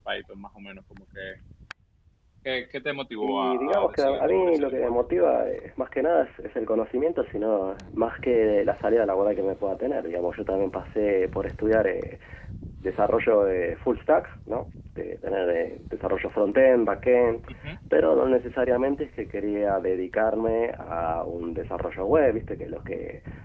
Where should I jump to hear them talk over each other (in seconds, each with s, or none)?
3.2 s